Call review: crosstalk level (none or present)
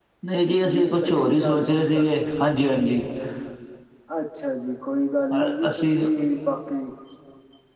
present